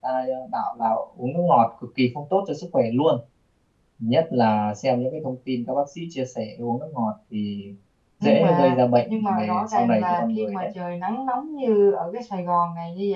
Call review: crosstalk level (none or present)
present